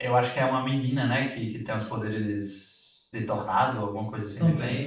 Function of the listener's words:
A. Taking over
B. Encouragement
A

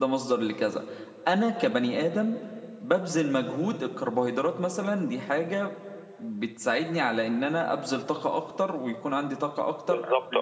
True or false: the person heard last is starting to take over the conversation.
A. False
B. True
A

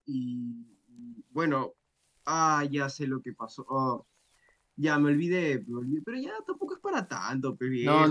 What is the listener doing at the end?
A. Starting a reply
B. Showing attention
A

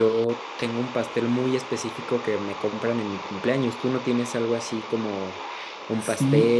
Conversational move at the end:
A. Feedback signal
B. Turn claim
B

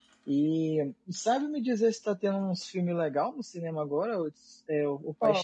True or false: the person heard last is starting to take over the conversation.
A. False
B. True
B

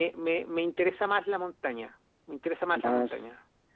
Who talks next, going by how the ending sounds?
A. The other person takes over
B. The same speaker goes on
A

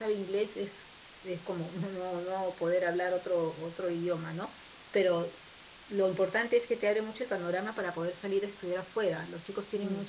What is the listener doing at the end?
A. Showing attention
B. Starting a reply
A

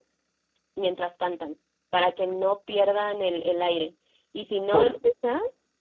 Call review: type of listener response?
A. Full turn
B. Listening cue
B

